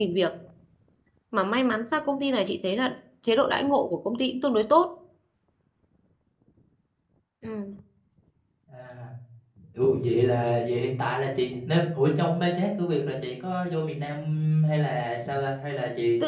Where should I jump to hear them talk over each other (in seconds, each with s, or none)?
none